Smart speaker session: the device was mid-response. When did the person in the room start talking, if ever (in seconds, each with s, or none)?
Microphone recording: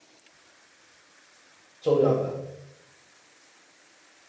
1.8 s